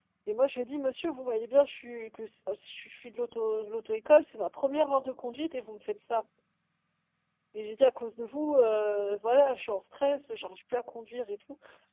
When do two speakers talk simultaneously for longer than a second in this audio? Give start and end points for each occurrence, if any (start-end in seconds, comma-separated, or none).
none